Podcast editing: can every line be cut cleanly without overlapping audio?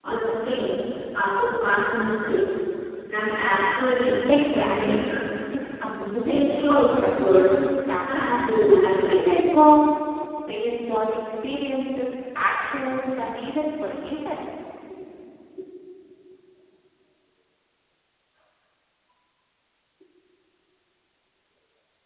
No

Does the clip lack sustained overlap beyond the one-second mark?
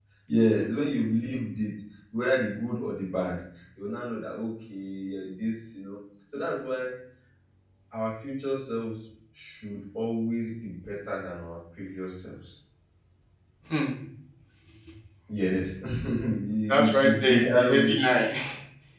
No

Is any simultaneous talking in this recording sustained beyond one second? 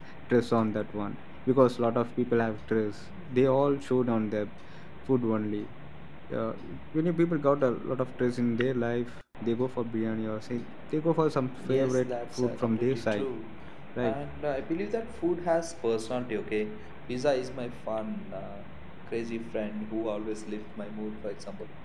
Yes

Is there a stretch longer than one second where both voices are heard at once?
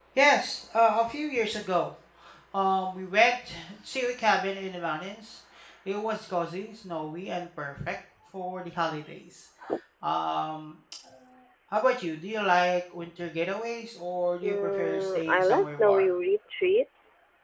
Yes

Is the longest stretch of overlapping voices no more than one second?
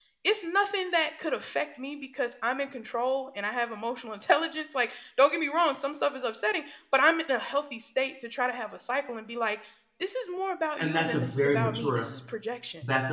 No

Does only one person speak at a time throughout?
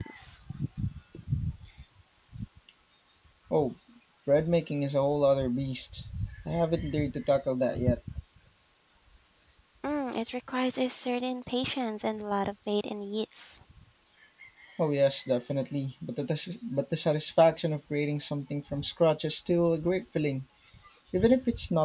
Yes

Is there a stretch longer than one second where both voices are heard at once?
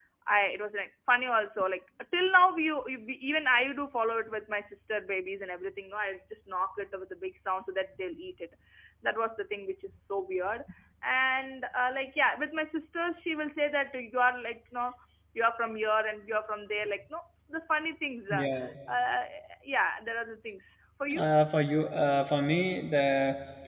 No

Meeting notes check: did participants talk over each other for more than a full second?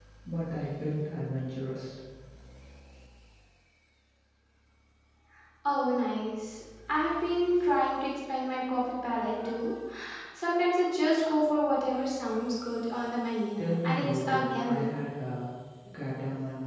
Yes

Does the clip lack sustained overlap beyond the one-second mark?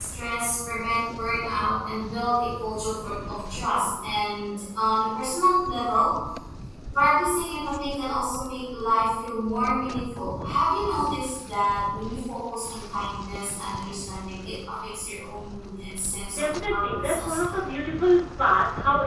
No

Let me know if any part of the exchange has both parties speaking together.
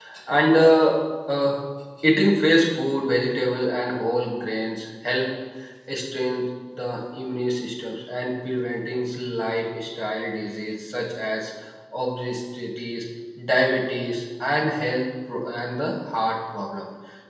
No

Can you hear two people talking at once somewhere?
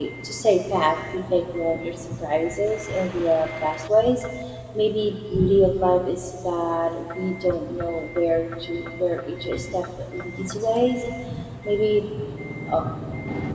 No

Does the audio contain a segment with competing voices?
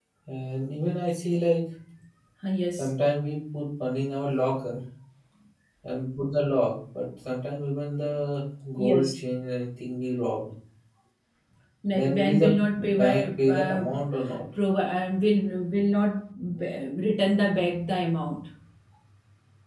Yes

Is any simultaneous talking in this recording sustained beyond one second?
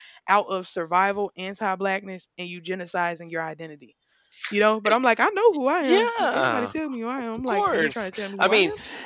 Yes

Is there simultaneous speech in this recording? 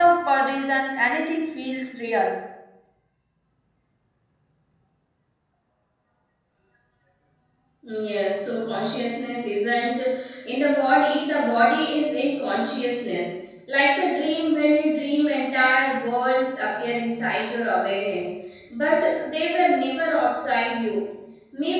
No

